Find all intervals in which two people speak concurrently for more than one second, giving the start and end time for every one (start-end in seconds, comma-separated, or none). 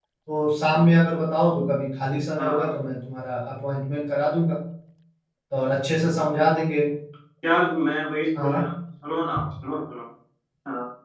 none